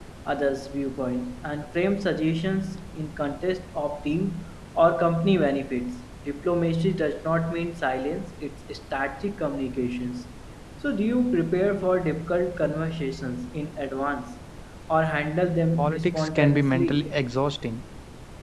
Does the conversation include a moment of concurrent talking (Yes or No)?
Yes